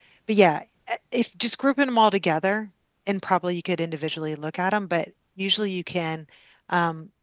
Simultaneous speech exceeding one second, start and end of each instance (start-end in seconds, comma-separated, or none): none